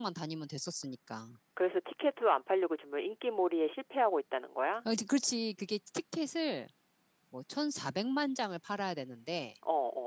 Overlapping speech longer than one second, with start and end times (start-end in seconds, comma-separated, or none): none